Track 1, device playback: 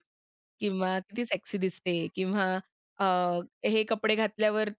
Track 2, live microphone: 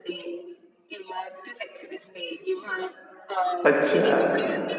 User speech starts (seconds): 3.7 s

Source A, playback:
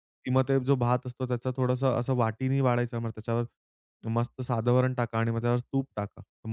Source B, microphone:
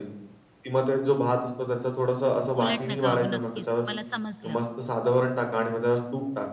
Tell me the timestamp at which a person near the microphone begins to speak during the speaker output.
2.6 s

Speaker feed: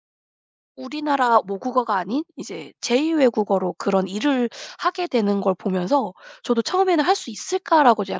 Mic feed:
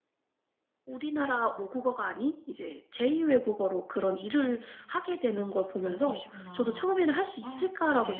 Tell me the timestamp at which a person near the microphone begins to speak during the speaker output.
4.3 s

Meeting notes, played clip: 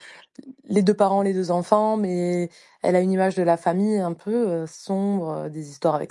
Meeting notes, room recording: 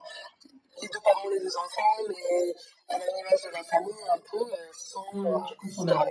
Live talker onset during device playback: 5.1 s

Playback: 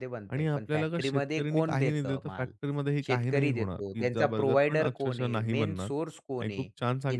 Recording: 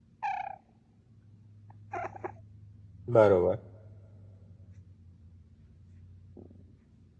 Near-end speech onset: 3.2 s

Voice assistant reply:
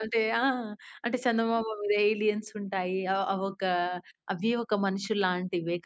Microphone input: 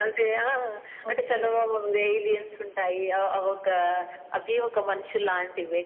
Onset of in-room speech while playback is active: 1.1 s

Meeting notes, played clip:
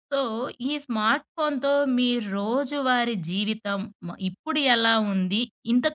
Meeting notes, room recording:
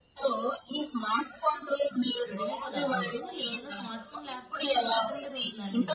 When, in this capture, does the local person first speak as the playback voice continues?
2.3 s

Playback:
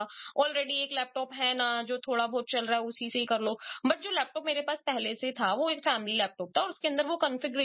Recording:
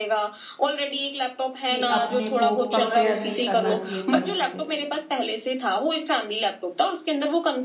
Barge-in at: 1.7 s

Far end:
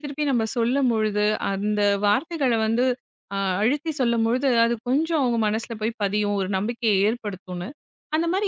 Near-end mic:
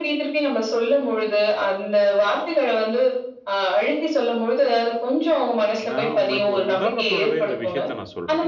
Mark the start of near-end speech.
5.9 s

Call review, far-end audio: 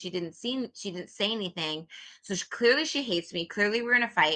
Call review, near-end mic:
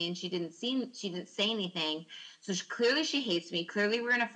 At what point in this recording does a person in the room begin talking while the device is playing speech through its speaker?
none

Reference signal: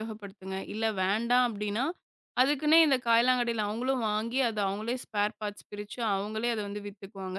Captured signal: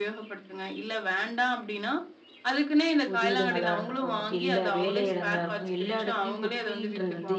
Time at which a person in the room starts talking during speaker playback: 3.1 s

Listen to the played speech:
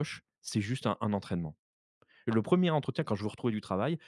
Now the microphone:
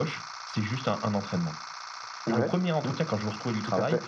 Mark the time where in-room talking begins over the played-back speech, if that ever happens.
2.3 s

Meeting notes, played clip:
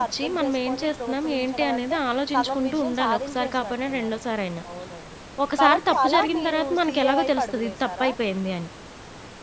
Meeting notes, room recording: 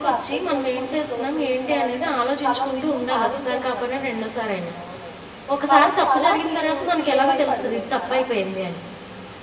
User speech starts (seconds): none

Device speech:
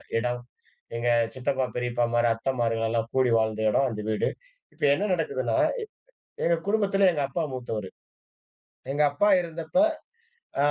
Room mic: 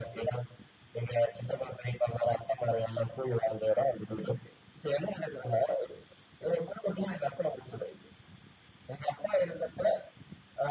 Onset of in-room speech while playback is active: none

